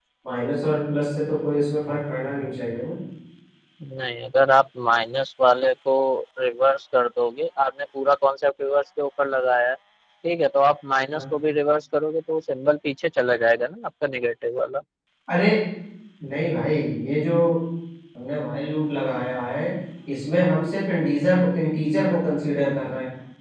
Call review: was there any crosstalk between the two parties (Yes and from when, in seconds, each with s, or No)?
No